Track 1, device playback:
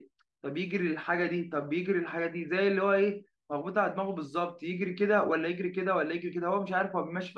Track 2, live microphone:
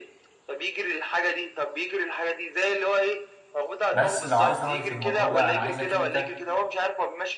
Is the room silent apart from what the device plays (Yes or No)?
No